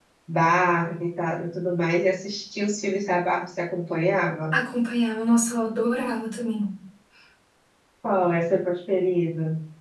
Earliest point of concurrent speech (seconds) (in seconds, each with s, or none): none